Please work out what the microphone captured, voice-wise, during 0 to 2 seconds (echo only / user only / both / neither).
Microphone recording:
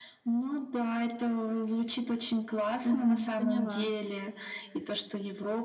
echo only